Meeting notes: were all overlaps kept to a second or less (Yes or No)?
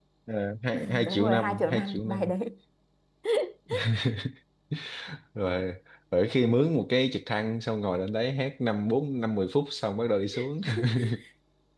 No